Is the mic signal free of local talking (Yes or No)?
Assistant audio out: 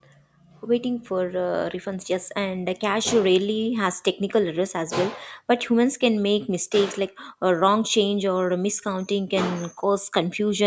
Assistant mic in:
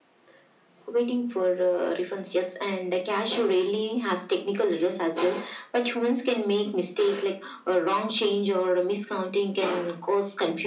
Yes